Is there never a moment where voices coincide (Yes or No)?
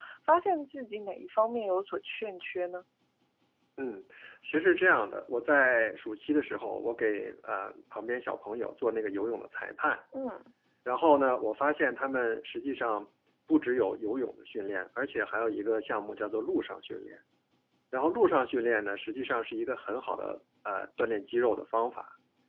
Yes